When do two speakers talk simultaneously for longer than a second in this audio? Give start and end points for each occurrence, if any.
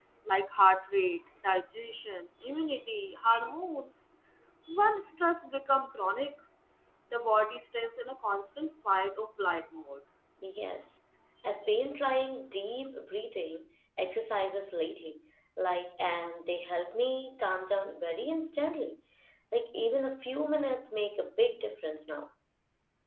none

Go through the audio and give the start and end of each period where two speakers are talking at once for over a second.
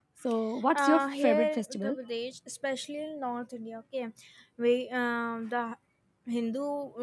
0.7-1.9

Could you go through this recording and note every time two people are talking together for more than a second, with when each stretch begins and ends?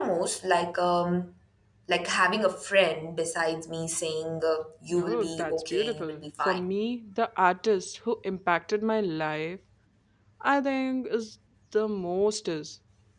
4.9-6.6

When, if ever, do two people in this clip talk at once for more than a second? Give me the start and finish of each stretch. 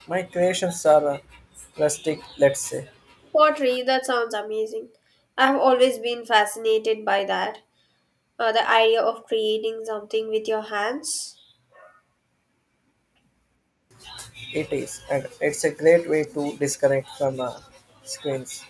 none

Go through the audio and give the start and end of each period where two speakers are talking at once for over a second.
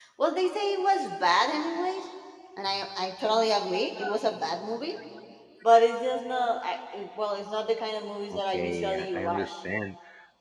8.3-9.5

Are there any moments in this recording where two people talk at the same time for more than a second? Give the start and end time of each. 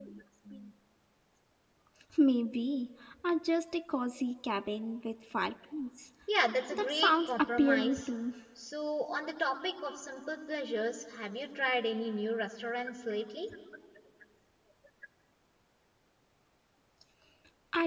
6.7-8.0

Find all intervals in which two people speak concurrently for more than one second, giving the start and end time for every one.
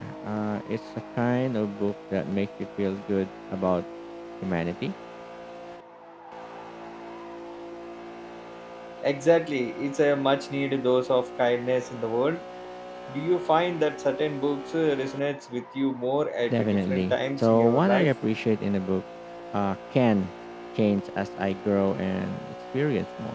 16.5-18.1

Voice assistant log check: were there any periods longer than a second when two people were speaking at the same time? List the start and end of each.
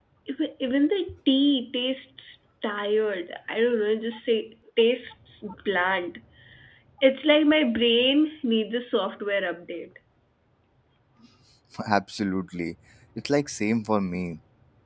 none

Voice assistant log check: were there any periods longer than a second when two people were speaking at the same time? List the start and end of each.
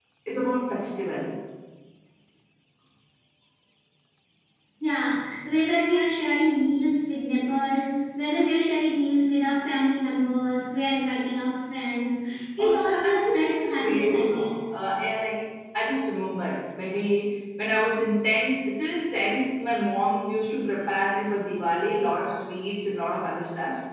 12.6-14.5

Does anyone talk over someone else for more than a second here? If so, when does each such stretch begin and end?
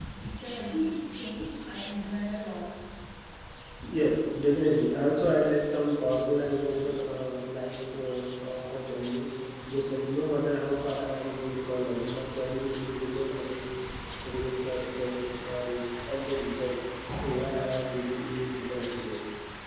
none

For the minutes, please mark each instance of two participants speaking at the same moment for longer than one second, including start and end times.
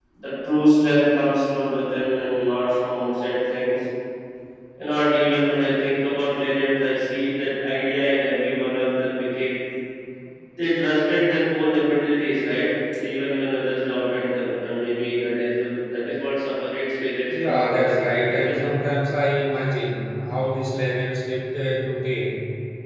17.3-18.7

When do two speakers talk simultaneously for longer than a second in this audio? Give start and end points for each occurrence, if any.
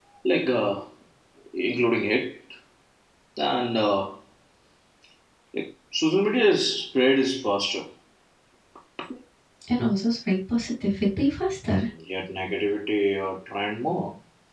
none

